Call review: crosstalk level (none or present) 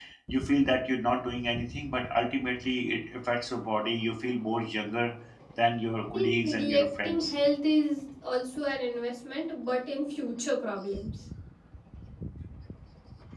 present